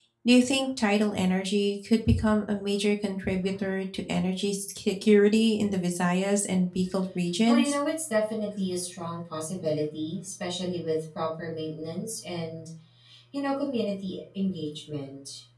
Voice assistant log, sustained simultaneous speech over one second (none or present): none